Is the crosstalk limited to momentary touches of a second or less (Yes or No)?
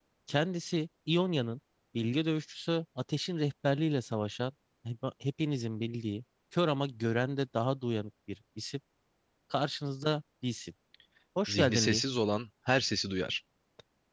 Yes